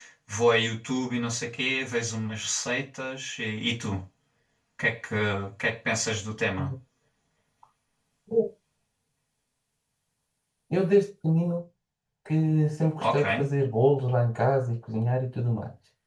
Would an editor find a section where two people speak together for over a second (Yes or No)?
No